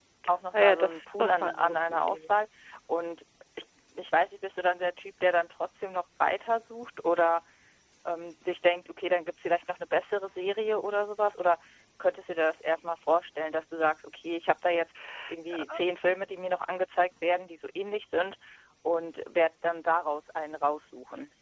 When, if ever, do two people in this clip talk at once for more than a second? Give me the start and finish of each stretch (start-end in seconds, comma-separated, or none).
0.5-2.4